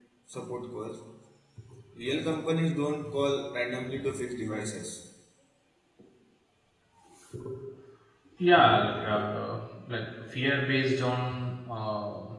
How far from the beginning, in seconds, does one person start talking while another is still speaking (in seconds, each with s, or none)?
none